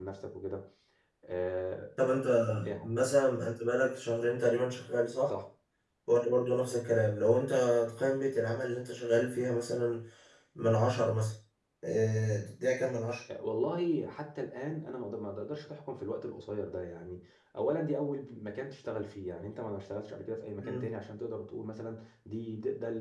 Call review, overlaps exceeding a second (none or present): none